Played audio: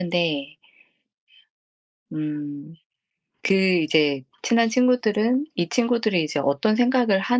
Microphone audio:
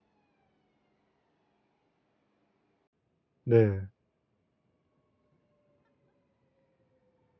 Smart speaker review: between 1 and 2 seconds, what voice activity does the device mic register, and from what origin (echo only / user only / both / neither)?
neither